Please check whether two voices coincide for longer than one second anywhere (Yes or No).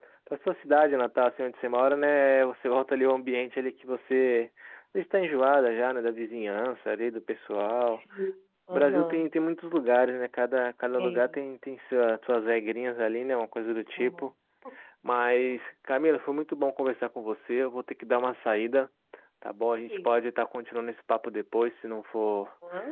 No